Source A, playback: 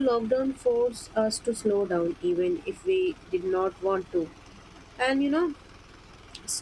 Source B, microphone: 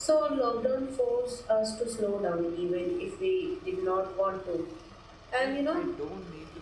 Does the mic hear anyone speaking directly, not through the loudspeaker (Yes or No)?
Yes